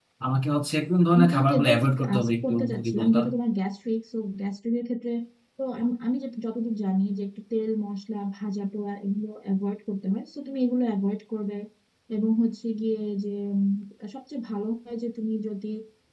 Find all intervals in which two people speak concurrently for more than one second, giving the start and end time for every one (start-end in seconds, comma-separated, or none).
1.1-3.2